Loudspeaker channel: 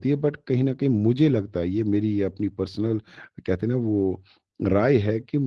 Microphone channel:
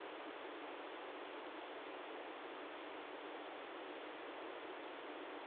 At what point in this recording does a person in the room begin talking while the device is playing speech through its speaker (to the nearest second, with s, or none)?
none